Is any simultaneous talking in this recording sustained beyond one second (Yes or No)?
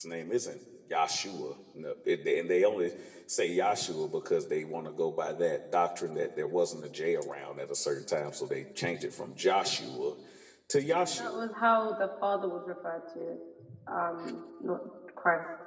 No